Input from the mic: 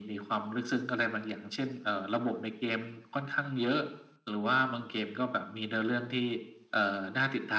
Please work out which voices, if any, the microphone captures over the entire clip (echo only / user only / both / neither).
echo only